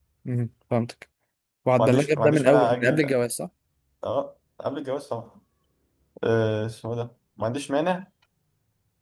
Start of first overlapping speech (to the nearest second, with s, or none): 2 s